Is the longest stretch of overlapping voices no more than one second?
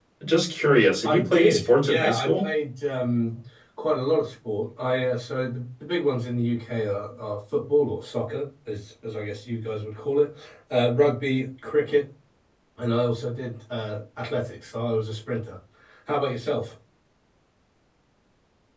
No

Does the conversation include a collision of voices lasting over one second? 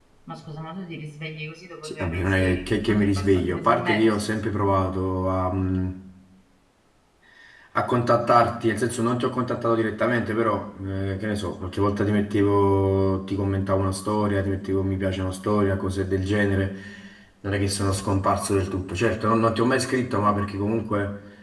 Yes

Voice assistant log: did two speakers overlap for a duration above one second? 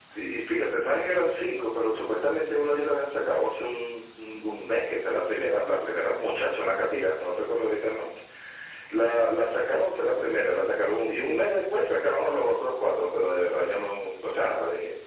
No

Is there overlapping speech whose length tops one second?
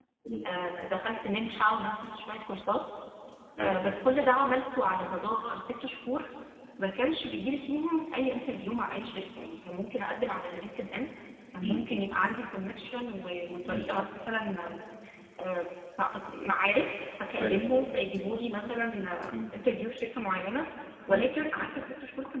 No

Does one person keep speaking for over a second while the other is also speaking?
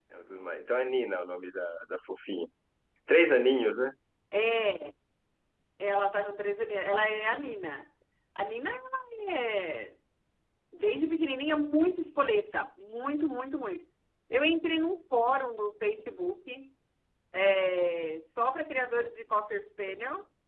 No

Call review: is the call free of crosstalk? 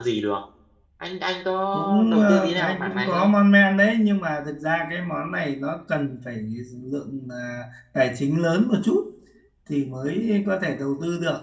No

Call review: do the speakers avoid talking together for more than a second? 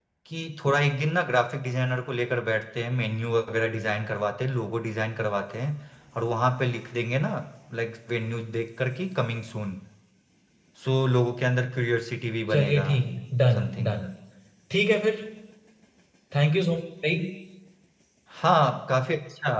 Yes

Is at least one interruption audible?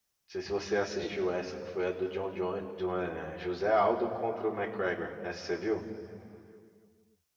No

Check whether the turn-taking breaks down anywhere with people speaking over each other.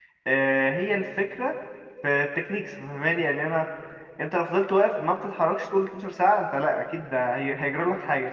No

